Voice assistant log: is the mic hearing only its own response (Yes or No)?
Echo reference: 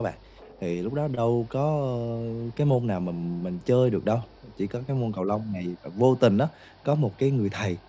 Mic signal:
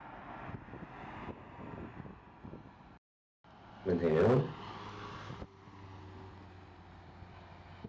No